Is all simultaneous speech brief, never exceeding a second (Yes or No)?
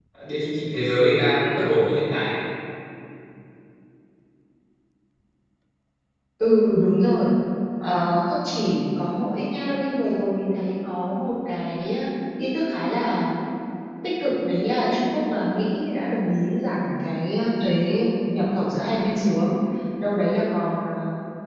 Yes